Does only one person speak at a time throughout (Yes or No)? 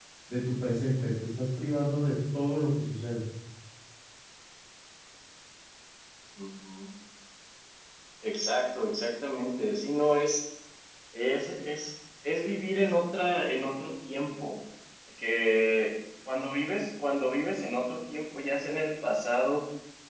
Yes